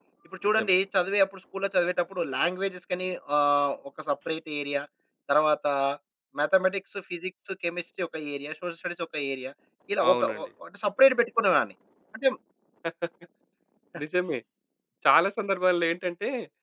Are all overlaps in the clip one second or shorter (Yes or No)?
Yes